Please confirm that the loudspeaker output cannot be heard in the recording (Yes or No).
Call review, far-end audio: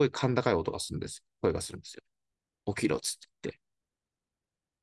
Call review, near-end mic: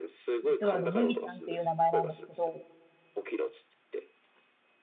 No